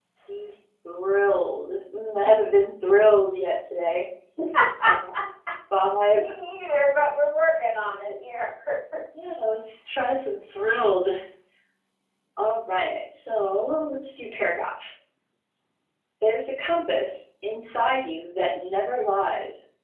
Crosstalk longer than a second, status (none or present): none